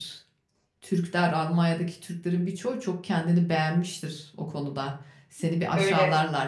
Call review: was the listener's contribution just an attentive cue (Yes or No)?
Yes